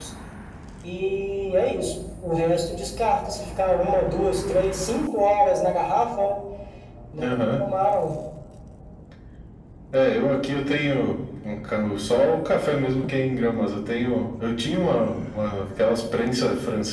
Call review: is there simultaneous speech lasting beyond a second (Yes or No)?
No